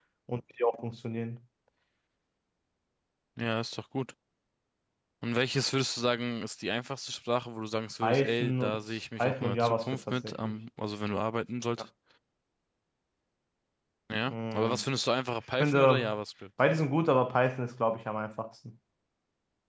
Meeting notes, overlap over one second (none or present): present